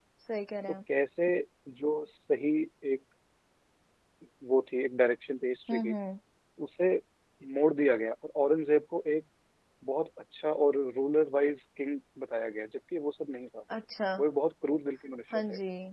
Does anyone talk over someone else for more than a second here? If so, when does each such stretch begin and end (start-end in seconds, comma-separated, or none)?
none